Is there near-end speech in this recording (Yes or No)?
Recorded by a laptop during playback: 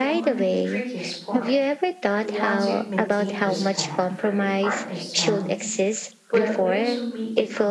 Yes